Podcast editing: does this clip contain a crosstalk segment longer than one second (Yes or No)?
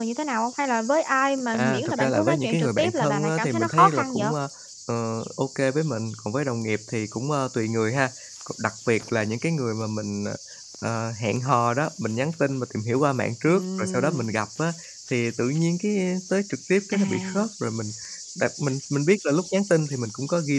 Yes